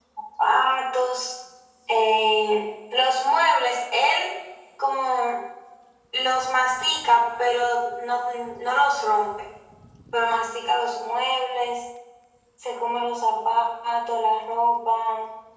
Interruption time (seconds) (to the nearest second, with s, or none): none